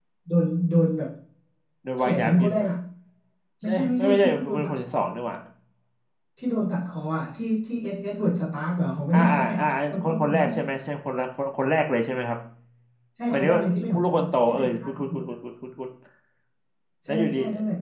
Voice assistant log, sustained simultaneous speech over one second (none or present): present